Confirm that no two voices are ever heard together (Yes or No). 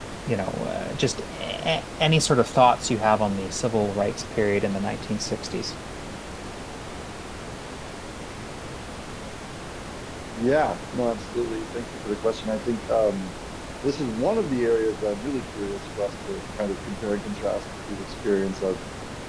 Yes